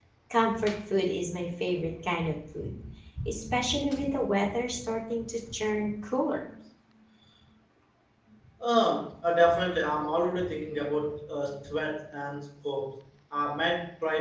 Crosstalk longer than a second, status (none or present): none